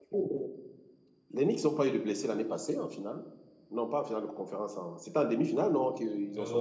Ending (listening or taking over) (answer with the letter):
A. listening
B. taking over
B